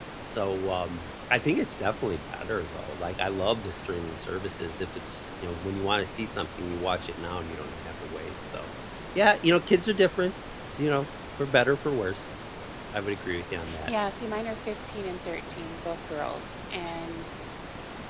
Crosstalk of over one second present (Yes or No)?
No